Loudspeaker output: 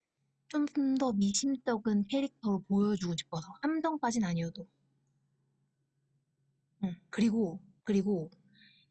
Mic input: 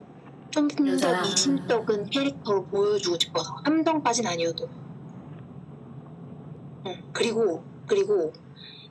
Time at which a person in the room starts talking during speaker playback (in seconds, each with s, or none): 0.8 s